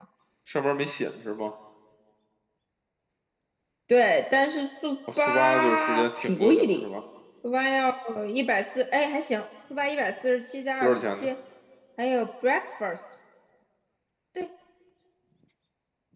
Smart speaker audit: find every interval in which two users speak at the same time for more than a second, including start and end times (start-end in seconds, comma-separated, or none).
5.2-6.8